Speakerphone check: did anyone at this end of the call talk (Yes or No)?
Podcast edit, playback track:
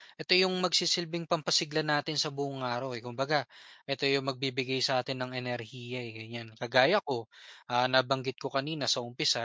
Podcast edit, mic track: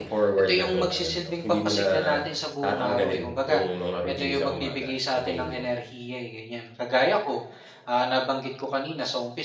Yes